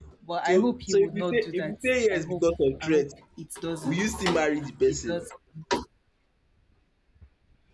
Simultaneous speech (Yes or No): Yes